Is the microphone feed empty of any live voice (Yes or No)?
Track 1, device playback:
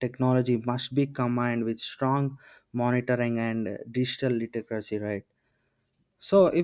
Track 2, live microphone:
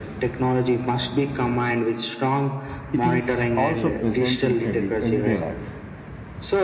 No